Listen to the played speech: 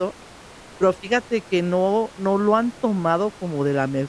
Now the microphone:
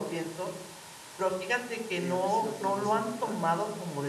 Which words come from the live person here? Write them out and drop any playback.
eh, a ver si lo podemos encontrar.

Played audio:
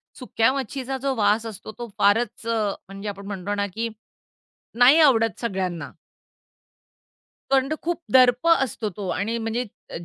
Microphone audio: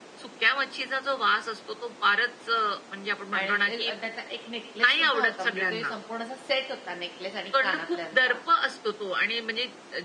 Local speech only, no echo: आणि ते अ, त्याचा एक नेकलेससुद्धा होता, म्हणजे ते संपूर्ण असा सेट होता नेकलेस आणि कानातल्यांचा.

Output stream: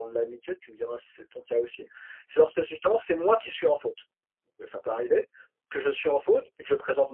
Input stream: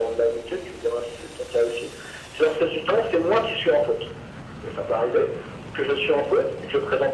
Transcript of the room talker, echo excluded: none

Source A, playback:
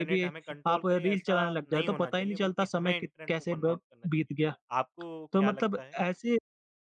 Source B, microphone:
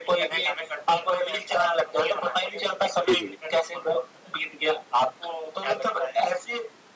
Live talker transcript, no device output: जी, जी।

